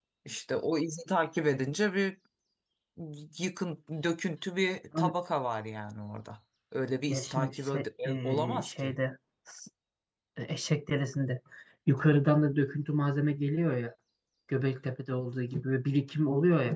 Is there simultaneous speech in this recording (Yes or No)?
Yes